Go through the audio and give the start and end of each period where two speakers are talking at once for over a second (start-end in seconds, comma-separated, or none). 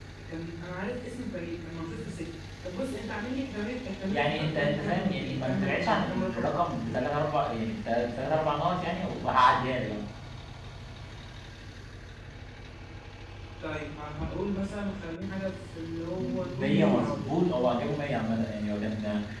4.1-6.5, 16.2-17.4